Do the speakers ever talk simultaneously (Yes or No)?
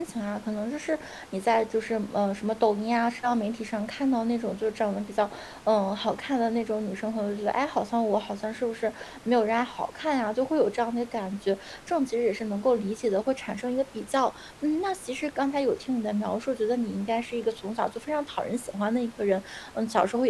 No